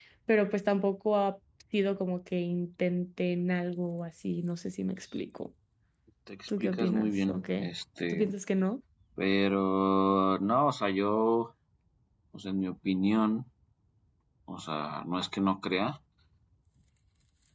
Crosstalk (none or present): present